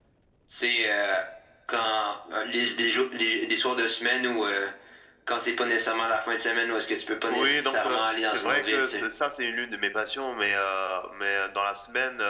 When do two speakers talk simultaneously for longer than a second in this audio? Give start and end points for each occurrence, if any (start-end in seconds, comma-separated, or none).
7.3-9.0